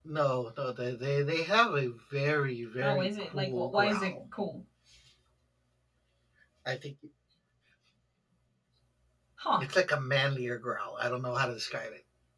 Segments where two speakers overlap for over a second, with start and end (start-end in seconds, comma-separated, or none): 2.8-4.2